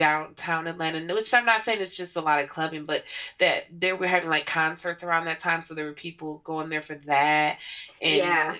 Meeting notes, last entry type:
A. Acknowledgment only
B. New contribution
A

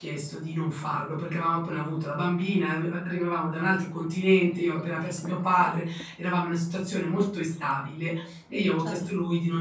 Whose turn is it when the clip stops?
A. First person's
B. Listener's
A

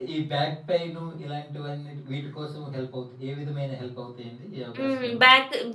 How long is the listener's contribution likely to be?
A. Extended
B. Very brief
A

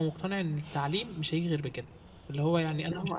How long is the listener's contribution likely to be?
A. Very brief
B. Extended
A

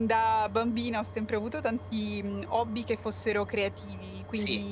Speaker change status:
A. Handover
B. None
B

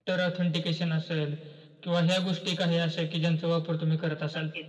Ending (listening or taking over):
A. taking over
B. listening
A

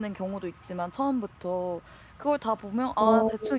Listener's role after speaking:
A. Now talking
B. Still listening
B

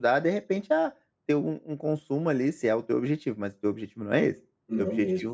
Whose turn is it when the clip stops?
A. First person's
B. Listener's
A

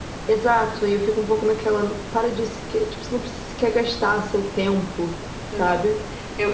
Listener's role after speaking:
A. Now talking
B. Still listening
A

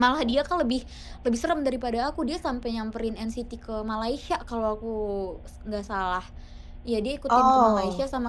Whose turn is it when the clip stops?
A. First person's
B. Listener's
A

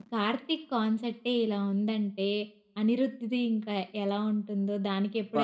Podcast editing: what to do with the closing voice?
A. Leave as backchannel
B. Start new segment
B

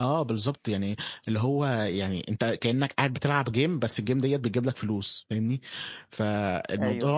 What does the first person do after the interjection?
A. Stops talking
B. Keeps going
B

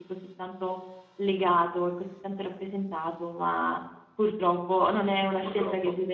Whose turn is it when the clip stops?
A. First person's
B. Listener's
A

